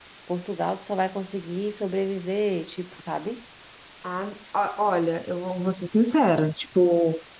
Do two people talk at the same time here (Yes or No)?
No